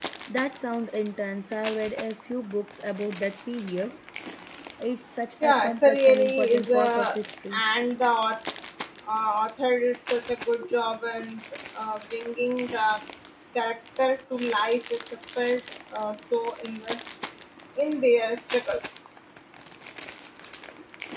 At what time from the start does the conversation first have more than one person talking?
5.4 s

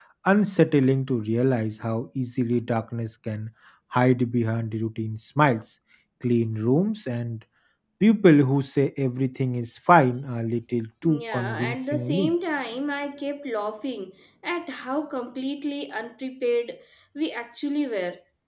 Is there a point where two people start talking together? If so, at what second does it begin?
11.0 s

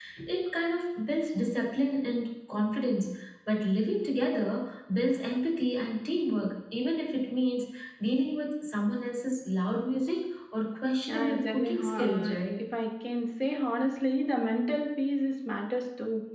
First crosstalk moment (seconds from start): 11.0 s

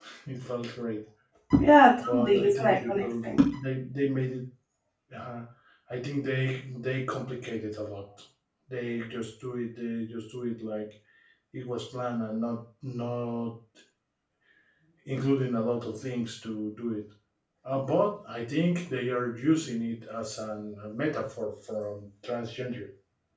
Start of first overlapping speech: 2.0 s

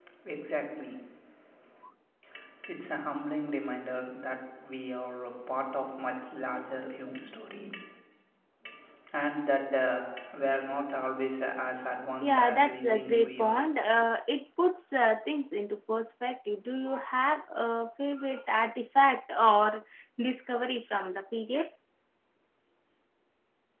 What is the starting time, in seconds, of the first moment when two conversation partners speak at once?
12.2 s

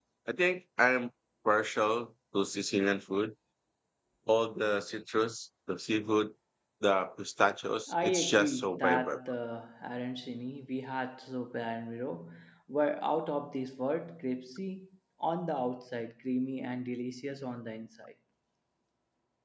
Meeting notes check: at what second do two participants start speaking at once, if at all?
7.9 s

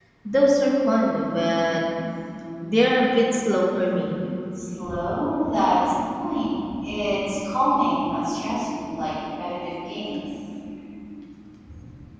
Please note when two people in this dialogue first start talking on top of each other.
none

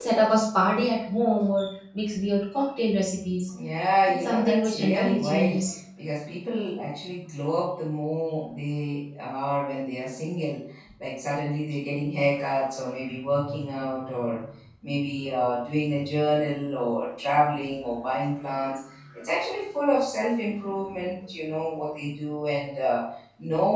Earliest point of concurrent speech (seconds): 4.1 s

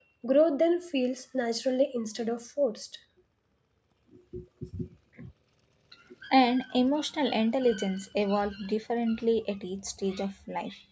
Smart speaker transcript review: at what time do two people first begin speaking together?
none

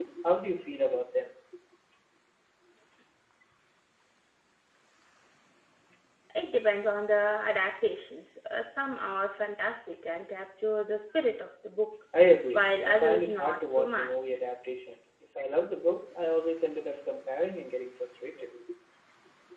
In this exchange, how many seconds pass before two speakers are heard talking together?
12.5 s

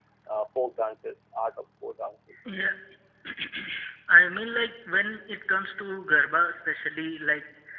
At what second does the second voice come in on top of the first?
none

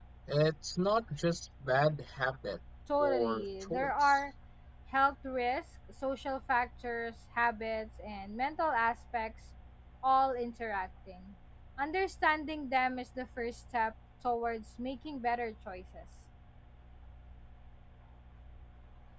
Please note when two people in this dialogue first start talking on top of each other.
2.9 s

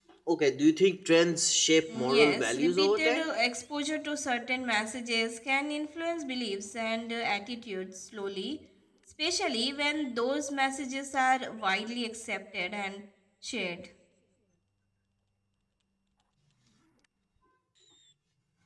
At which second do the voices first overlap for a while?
1.9 s

